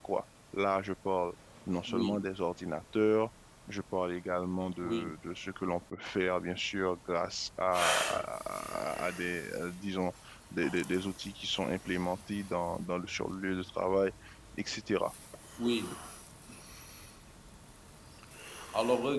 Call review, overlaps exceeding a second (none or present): none